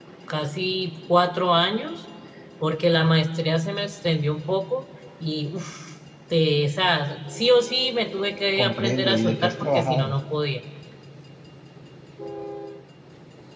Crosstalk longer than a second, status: present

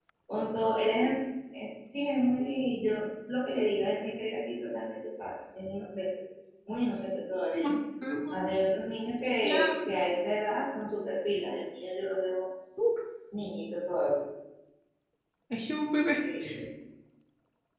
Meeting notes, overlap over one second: none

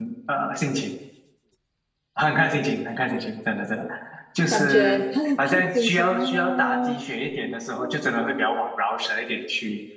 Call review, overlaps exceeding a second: present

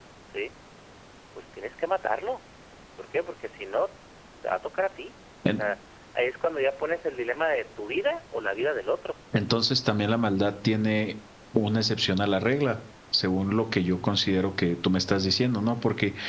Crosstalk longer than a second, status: none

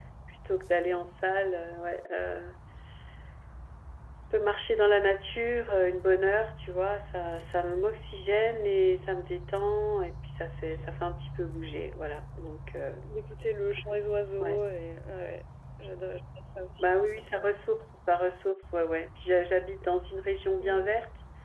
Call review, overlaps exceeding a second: none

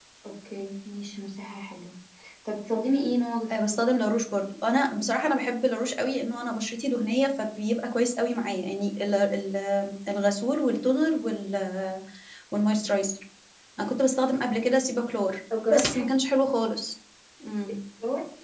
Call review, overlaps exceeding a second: none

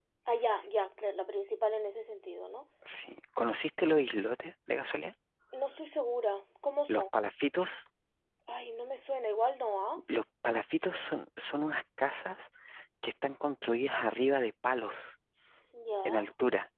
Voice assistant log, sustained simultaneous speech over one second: none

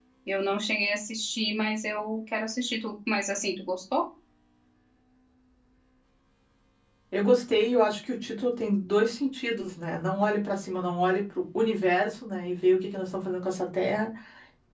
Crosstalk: none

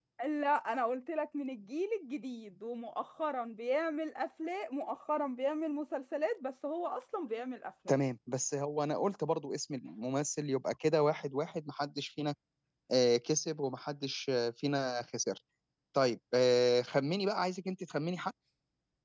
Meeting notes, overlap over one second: none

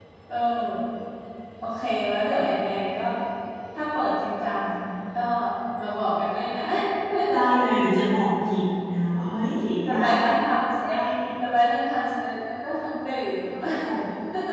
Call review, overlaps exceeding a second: none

